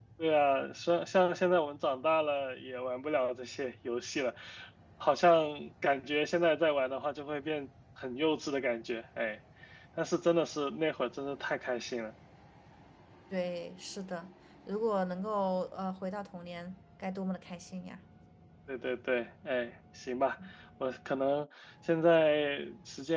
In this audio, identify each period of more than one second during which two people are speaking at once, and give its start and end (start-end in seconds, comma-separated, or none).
none